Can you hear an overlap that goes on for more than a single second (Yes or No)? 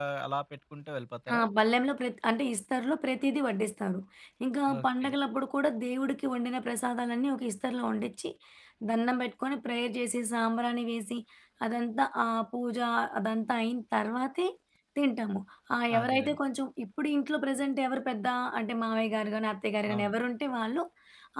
No